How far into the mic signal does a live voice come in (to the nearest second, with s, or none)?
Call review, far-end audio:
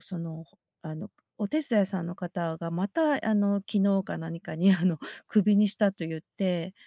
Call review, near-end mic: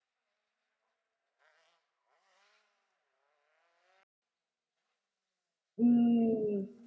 6 s